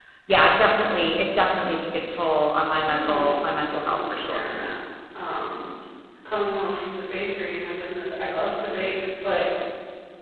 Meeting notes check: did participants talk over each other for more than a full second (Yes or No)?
Yes